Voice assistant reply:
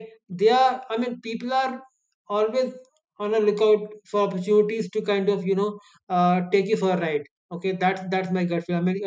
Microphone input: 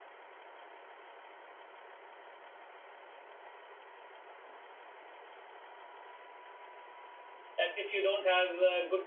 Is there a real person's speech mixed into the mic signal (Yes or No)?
Yes